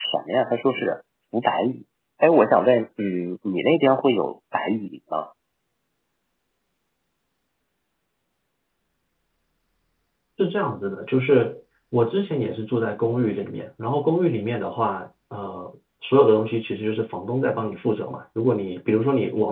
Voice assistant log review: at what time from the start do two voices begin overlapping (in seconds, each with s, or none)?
none